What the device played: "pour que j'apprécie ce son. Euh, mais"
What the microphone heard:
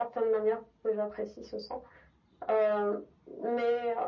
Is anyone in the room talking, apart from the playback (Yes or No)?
No